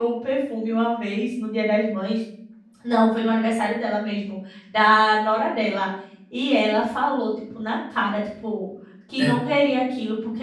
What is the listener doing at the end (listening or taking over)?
listening